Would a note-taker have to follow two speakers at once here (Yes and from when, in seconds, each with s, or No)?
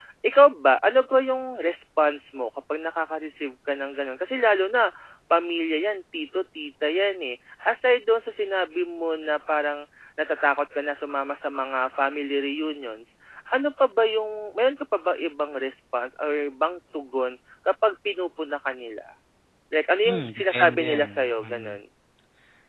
Yes, from 20.0 s